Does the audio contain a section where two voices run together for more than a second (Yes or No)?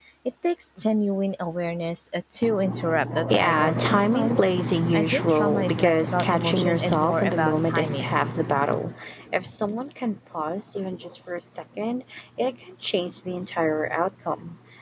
Yes